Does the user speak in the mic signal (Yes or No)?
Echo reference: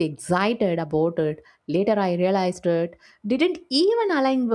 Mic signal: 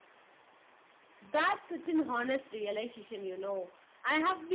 Yes